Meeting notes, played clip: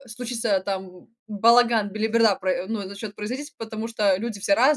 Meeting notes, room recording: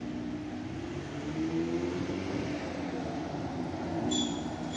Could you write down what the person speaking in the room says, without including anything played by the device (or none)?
none